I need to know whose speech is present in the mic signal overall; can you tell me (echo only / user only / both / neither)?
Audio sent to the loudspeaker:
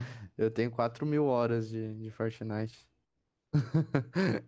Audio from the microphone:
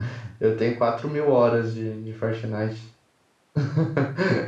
echo only